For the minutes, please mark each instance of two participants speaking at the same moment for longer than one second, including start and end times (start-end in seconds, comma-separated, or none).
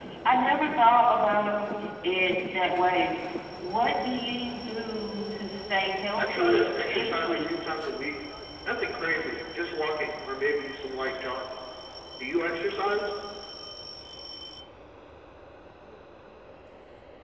6.2-7.5